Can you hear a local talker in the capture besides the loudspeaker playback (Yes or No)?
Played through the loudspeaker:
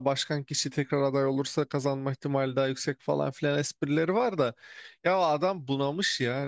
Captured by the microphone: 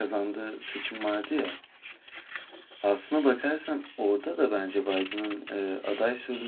Yes